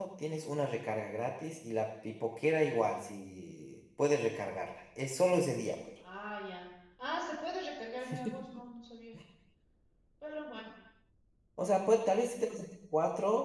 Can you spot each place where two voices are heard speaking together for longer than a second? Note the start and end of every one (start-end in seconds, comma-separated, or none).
none